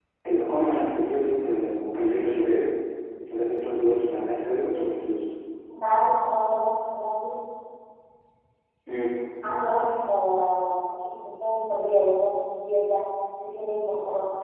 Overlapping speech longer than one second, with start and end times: none

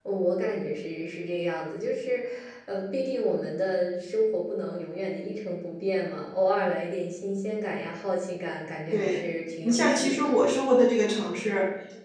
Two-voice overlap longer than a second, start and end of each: 8.9-10.4

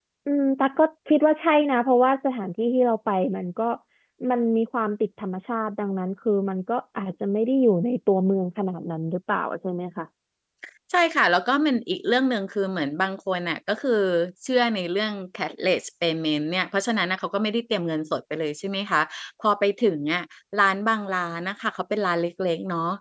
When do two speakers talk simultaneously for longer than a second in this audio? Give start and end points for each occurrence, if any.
none

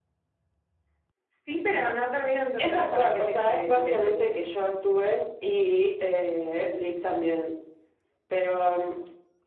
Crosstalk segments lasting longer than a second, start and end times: 2.6-4.3

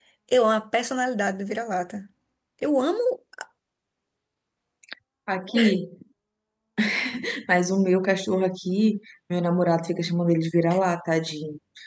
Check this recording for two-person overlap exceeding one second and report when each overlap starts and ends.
none

